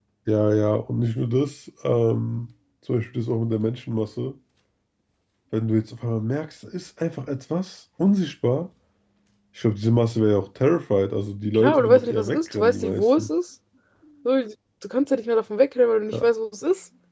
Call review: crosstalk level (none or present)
present